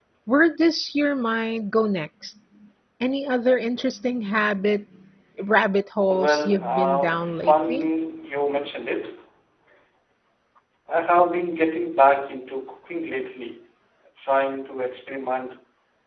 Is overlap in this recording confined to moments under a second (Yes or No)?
No